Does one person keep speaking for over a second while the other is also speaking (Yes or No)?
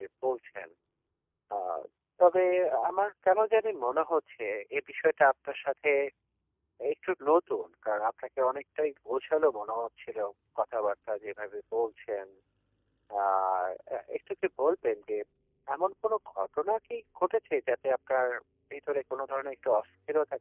No